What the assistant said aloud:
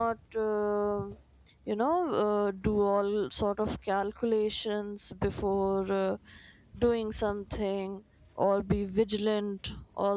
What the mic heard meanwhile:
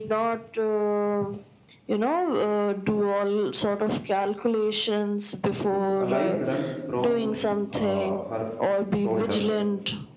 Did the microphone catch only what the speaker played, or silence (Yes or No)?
No